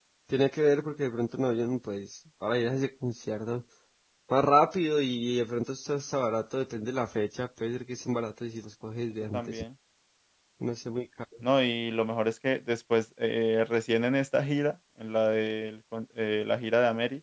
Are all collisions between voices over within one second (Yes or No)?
Yes